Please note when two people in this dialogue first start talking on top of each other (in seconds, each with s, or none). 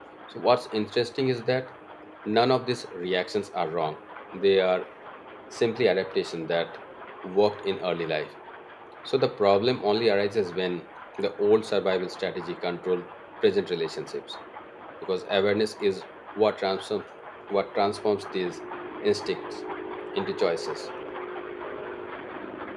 none